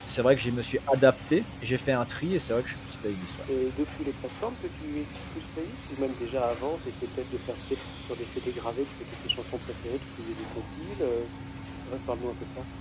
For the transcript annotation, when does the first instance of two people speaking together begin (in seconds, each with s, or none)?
none